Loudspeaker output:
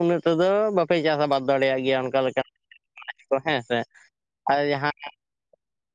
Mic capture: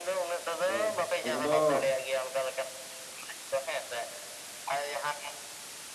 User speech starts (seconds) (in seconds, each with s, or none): 0.6 s